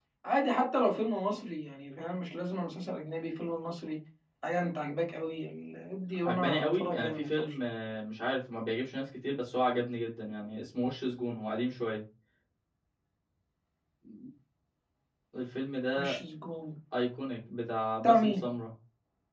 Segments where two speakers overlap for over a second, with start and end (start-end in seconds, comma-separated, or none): 6.2-7.5